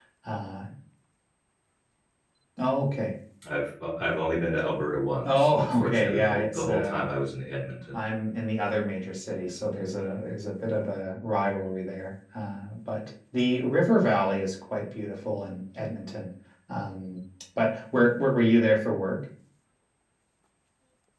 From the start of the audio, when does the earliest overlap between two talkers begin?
5.2 s

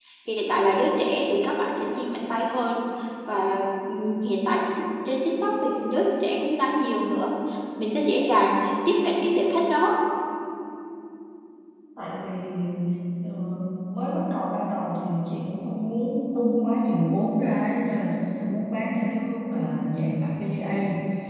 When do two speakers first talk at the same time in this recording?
none

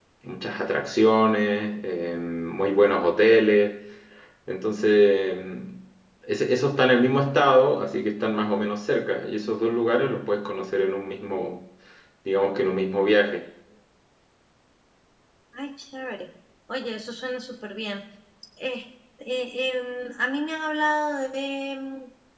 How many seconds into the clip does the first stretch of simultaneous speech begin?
none

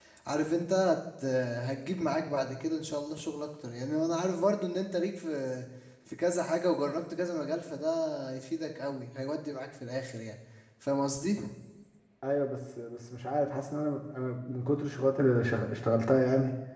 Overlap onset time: none

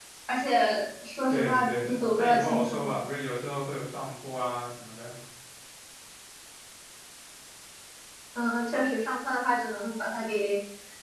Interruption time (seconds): 1.3 s

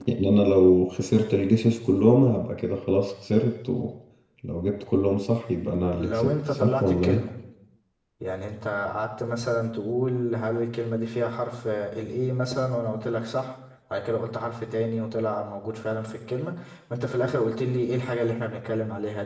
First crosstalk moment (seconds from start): 6.0 s

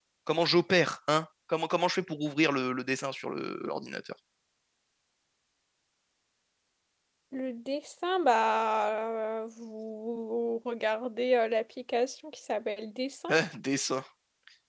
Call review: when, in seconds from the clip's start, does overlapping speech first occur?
none

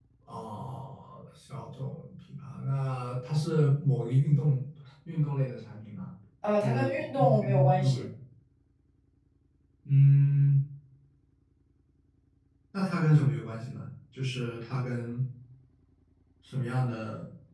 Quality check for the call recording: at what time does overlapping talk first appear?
6.6 s

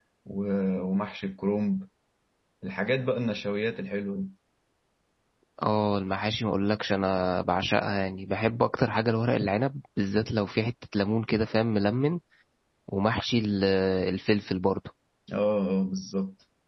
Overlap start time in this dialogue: none

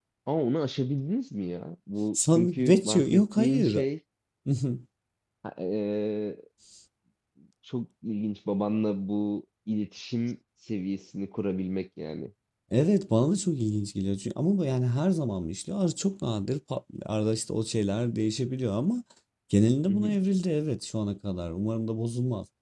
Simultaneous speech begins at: 2.1 s

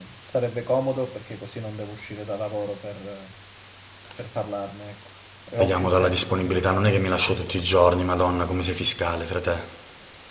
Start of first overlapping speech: 5.6 s

